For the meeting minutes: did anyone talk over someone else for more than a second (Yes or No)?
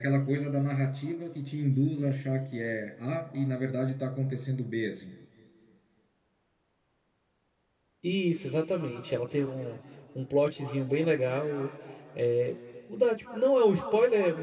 No